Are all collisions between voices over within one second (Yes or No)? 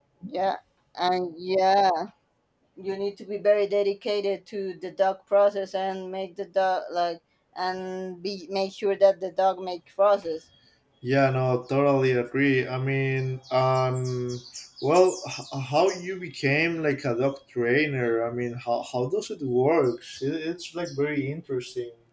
Yes